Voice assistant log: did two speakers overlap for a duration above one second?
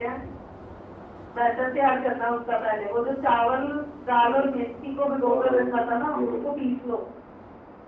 Yes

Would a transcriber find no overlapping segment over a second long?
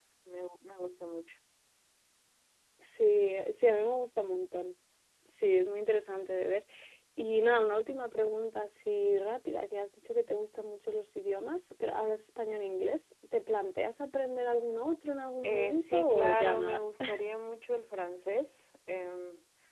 No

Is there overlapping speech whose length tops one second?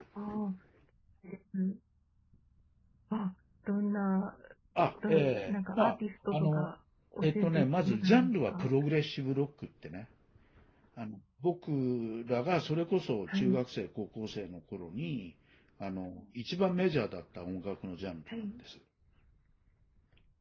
Yes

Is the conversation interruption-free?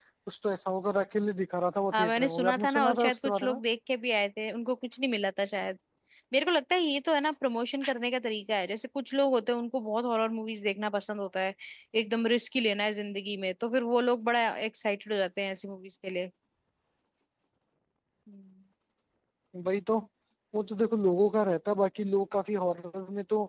No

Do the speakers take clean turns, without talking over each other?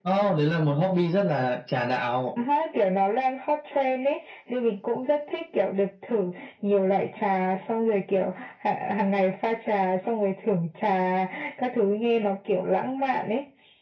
Yes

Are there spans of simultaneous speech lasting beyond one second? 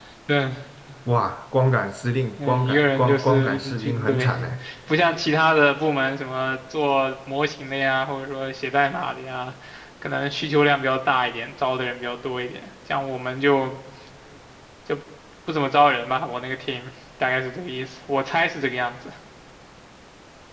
Yes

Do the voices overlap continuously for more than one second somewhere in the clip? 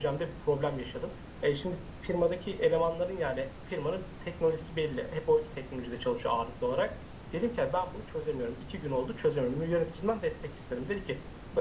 No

